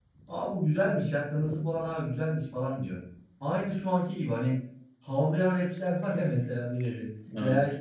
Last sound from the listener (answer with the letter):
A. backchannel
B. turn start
A